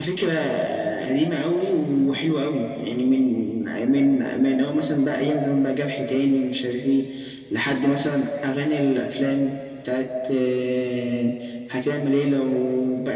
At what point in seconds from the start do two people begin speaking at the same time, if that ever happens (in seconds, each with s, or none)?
none